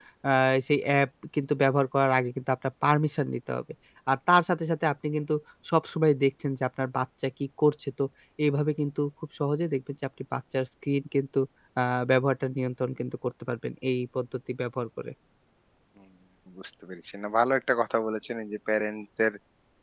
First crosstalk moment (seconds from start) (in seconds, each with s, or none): none